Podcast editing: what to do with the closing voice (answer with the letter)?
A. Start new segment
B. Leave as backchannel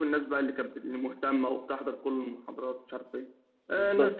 B